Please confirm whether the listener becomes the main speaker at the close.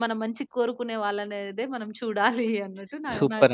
Yes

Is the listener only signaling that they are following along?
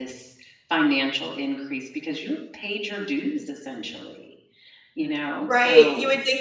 No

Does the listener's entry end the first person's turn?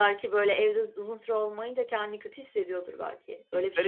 Yes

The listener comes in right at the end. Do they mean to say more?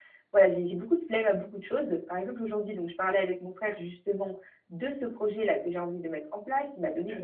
No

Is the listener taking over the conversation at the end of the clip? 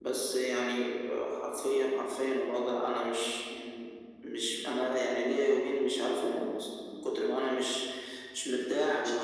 No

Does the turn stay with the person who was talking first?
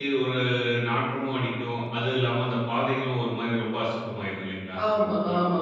No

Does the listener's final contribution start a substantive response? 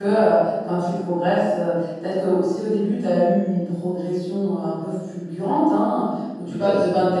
No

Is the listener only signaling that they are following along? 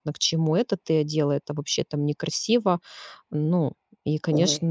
Yes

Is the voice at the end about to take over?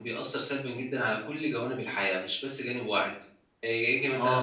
Yes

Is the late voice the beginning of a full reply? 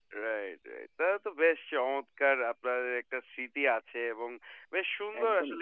No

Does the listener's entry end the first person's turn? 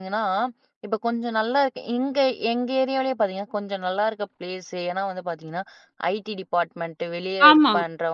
No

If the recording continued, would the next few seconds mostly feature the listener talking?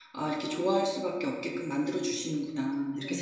Yes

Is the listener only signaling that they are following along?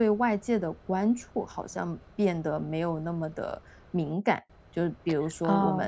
Yes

